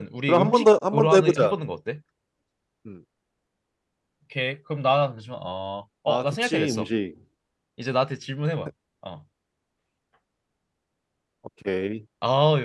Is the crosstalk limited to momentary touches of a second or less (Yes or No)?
No